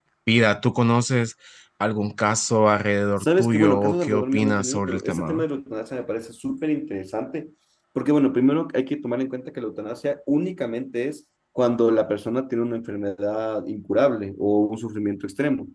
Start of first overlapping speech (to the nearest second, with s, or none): 3 s